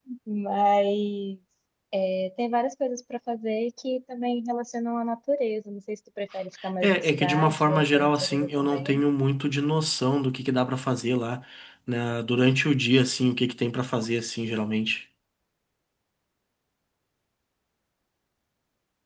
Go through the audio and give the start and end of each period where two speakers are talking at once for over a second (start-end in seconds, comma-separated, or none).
6.8-9.0